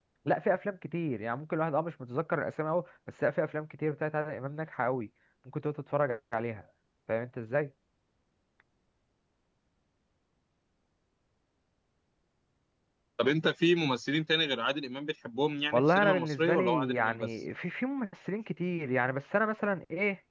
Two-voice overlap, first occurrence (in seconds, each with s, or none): 15.7 s